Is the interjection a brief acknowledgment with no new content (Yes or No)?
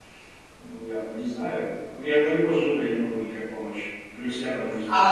No